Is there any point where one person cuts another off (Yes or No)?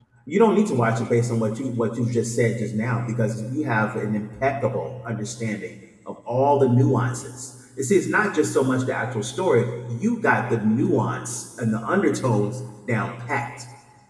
No